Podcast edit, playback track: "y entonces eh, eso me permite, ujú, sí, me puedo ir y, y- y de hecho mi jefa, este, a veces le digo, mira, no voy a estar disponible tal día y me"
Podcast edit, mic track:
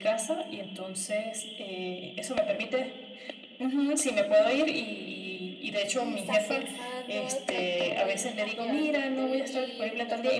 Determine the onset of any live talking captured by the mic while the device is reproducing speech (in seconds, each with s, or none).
6.0 s